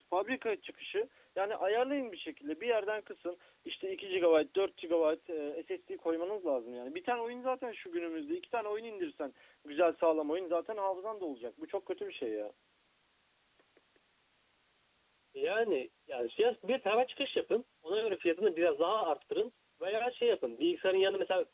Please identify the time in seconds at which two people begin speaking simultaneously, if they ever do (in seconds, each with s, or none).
none